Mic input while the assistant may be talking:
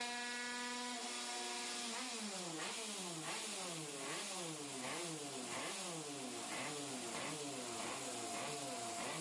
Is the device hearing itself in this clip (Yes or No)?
No